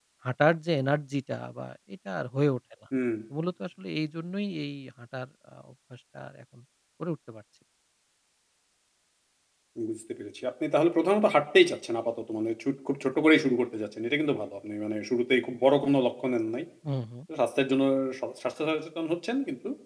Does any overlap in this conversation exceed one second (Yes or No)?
No